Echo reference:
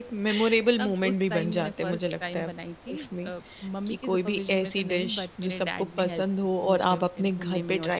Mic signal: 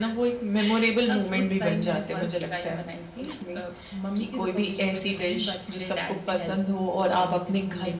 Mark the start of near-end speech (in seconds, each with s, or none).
none